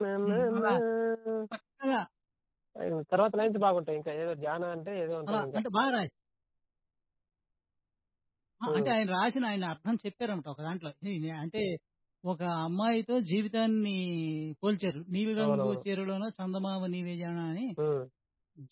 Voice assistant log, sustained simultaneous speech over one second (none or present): none